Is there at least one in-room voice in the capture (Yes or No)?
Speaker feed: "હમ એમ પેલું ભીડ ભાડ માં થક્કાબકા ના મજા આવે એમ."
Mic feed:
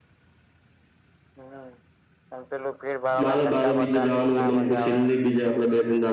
Yes